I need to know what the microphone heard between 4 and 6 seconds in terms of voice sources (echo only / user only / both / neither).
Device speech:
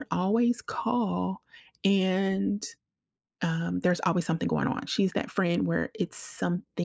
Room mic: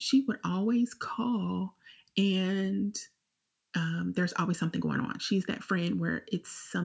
echo only